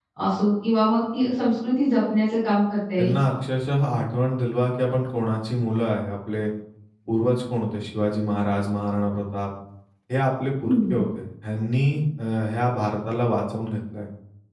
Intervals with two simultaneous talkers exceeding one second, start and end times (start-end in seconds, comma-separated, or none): none